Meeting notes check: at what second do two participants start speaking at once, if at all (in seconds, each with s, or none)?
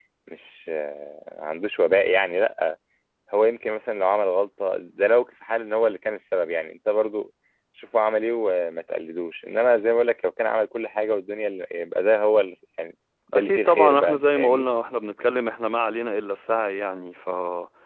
13.3 s